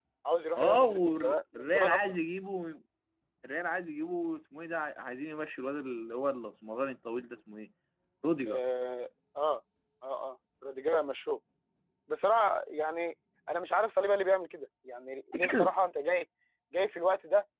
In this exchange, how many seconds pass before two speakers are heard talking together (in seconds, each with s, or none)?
0.6 s